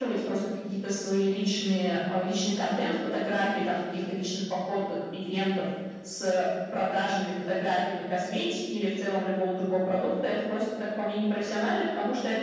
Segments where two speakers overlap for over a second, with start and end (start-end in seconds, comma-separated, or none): none